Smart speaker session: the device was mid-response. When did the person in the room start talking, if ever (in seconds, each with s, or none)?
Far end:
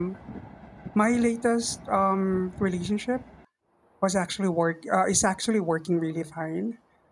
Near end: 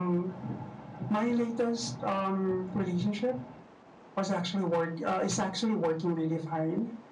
none